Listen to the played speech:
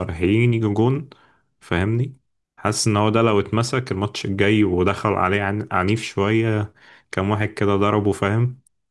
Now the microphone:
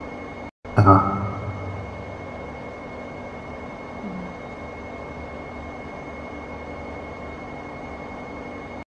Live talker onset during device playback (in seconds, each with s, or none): 0.8 s